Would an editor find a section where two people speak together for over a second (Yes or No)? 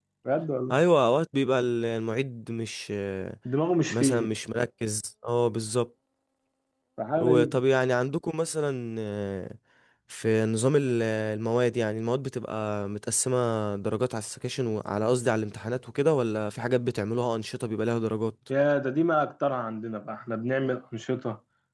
No